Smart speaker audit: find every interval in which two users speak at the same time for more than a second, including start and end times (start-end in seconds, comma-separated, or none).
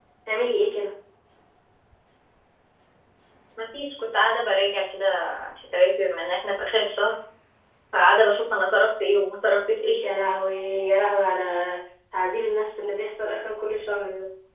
none